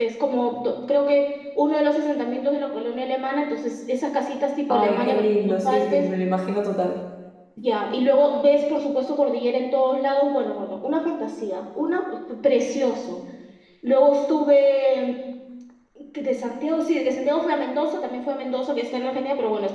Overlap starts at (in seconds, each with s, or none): 4.7 s